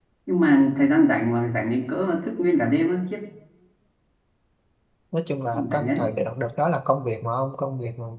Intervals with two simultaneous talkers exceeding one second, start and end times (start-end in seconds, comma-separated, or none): none